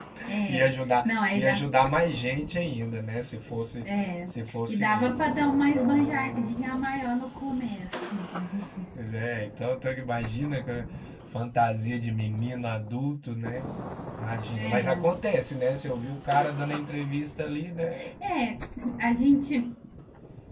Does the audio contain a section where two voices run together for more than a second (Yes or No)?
Yes